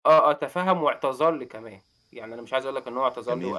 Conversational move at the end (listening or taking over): listening